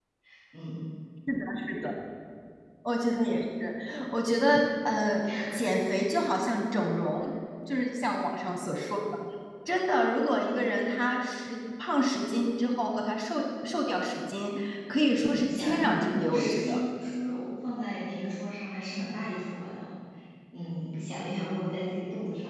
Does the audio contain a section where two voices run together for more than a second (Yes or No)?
Yes